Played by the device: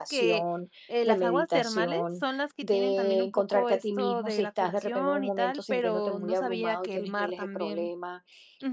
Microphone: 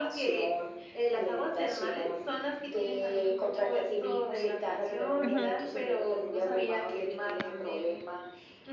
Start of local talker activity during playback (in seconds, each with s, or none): 5.2 s